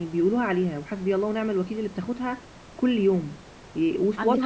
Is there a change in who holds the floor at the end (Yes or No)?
No